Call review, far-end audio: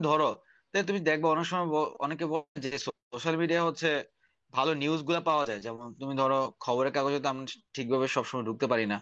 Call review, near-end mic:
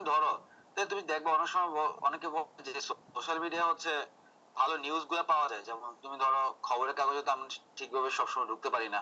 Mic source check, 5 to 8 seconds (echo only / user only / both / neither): echo only